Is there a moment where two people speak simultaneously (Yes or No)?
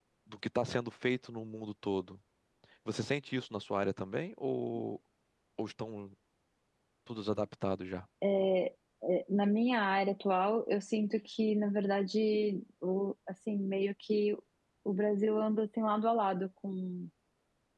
No